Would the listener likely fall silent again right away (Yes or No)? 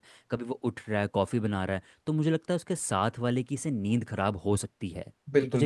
No